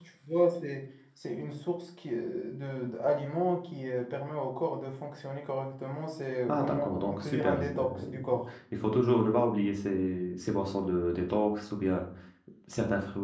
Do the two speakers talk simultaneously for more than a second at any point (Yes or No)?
Yes